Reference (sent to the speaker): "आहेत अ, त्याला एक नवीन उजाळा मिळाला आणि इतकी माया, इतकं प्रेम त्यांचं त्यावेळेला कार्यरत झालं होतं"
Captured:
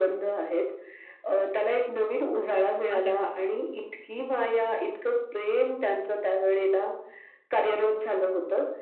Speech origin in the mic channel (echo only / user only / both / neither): both